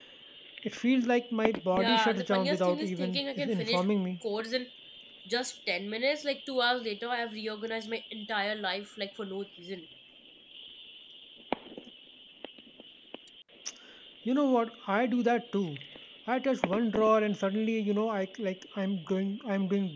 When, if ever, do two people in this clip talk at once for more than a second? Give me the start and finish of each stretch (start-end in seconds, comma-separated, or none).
1.7-3.8